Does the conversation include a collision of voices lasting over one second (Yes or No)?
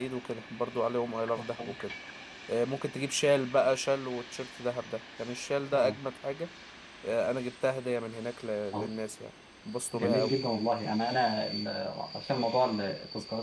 No